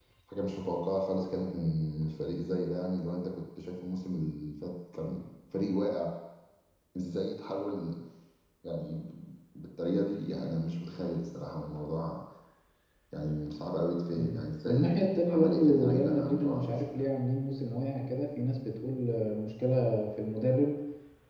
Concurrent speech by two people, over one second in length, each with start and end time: 14.1-17.0

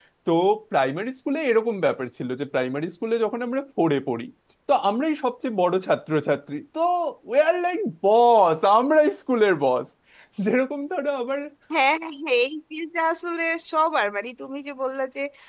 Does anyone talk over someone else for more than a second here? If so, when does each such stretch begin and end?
none

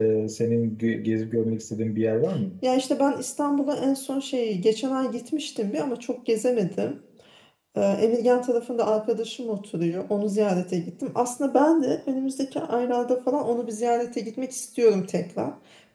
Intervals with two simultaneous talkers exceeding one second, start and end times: none

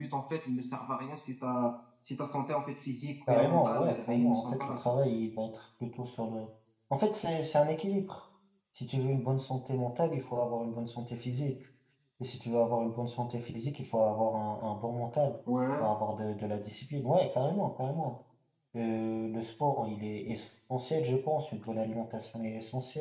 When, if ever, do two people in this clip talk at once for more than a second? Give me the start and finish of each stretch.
3.3-5.0

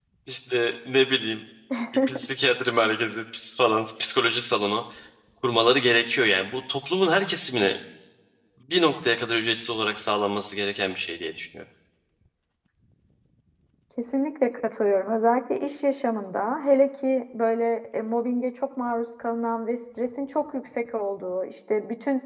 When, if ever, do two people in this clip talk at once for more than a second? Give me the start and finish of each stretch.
none

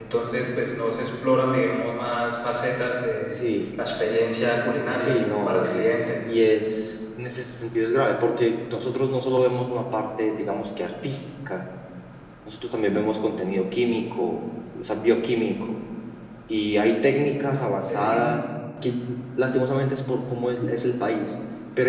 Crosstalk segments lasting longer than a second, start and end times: 4.9-6.1

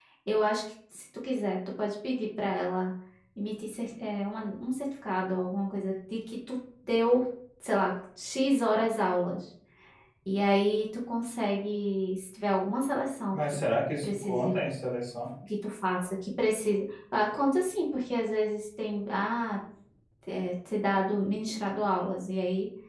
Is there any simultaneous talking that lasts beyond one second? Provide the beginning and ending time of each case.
none

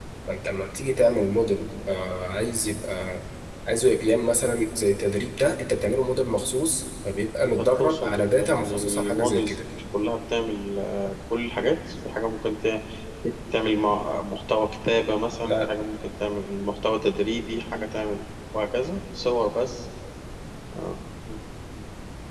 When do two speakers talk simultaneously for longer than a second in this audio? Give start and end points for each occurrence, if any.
7.8-9.6

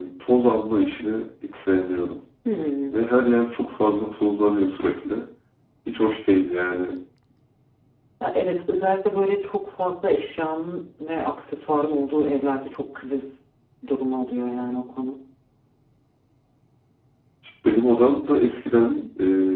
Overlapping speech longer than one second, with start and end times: none

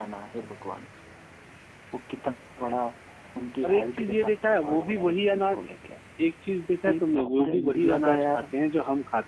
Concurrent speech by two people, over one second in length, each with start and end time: 3.6-5.5, 6.8-8.4

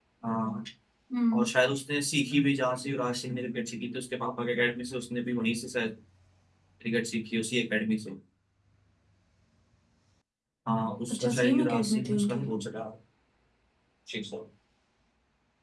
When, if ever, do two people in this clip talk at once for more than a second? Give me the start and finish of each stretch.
11.1-12.4

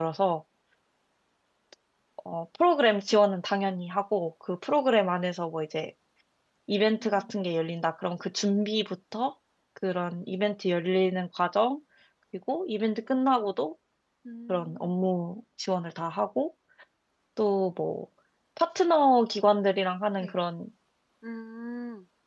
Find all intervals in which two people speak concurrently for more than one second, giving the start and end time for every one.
none

